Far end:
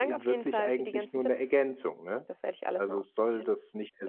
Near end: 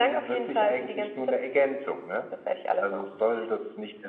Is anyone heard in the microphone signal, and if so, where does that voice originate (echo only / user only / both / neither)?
echo only